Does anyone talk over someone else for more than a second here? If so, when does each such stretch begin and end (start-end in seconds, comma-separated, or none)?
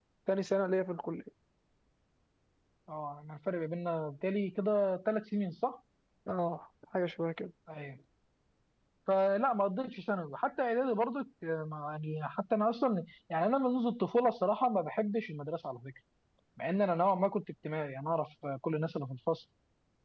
none